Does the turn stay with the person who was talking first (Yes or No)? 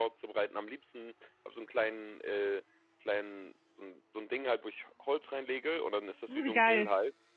Yes